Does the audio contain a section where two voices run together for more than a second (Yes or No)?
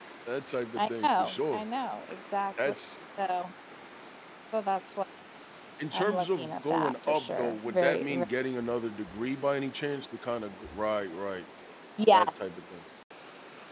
Yes